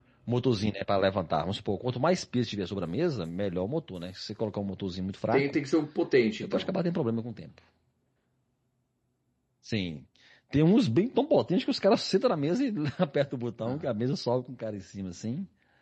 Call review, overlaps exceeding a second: none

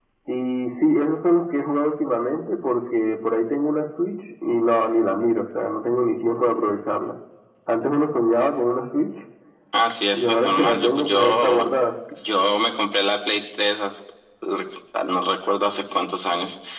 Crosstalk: present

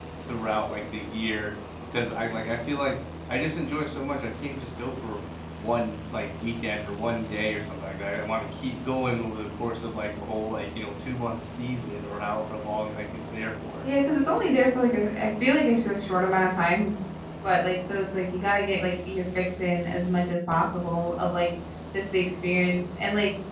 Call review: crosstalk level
none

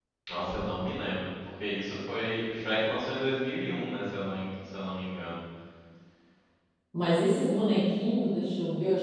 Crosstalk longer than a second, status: none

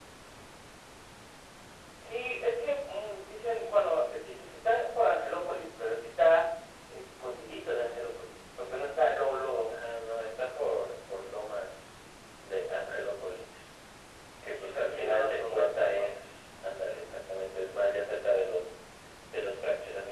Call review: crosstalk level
present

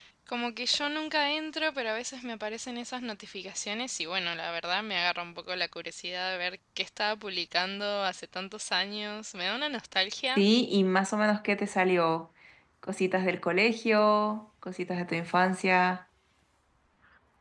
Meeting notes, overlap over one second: none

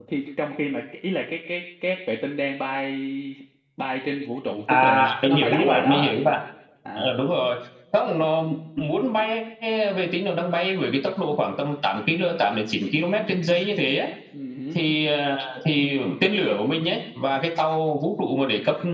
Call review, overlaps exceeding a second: present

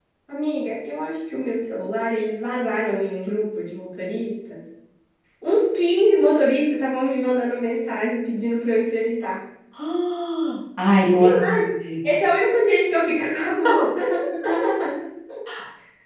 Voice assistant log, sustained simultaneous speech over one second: none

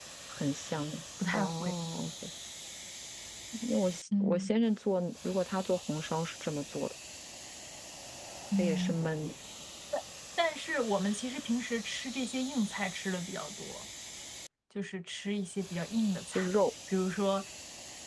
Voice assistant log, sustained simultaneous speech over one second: none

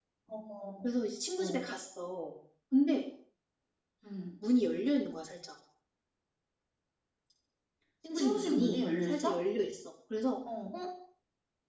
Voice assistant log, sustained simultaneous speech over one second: present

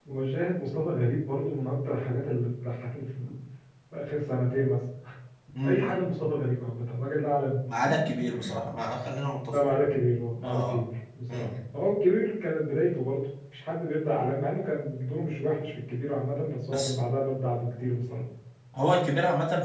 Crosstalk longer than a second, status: none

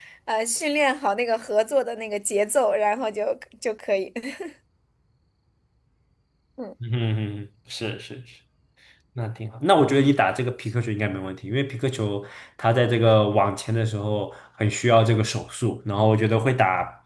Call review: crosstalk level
none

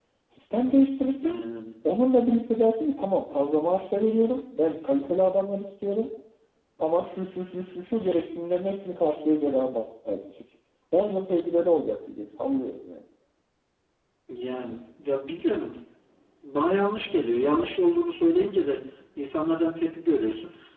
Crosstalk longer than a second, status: none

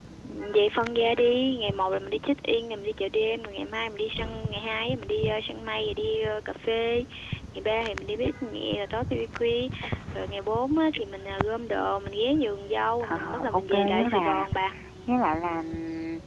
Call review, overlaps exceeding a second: present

